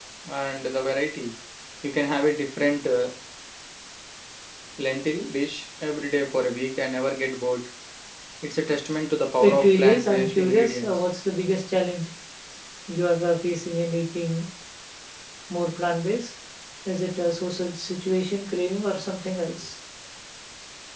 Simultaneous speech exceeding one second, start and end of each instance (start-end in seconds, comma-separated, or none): 9.4-10.9